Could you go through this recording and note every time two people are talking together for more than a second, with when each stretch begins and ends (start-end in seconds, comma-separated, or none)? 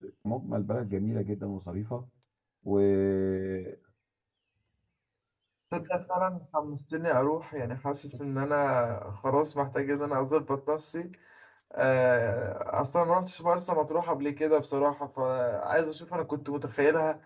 none